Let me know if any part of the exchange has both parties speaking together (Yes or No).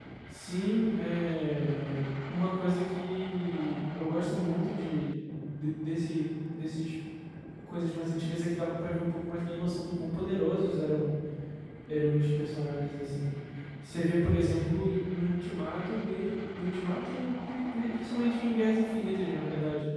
No